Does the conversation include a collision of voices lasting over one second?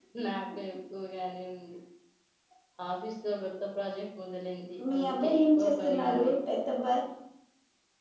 Yes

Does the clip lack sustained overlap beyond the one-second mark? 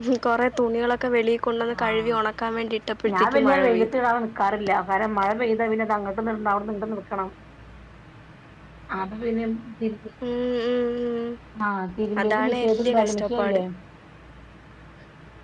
No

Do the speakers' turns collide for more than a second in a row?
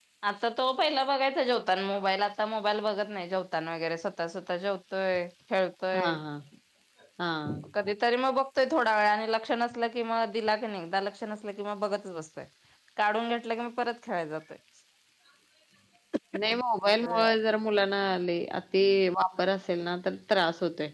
No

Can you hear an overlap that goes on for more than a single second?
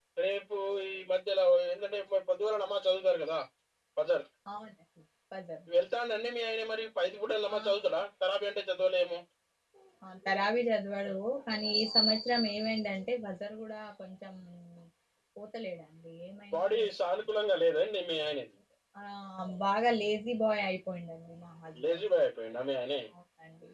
No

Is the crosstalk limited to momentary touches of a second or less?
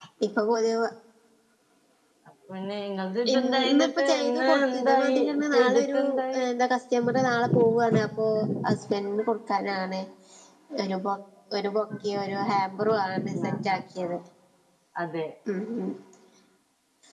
No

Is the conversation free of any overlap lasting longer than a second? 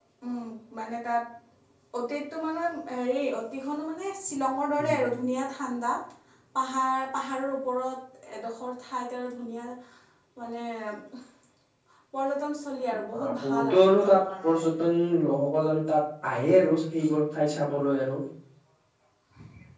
No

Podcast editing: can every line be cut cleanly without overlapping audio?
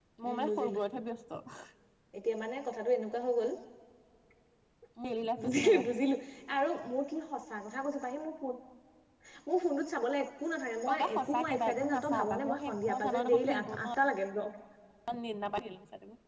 No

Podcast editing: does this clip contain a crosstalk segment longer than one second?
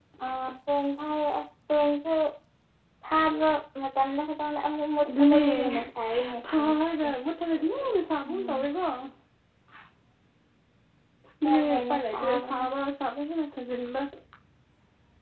Yes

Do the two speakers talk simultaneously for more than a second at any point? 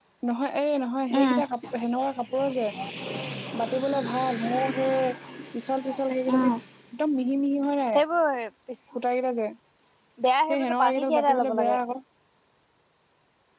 Yes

